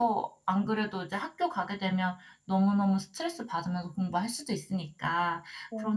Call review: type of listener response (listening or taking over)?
listening